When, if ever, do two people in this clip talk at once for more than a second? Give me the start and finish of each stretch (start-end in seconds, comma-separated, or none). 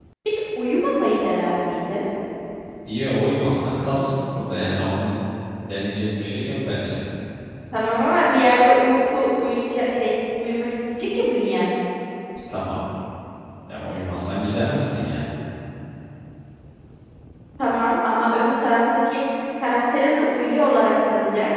none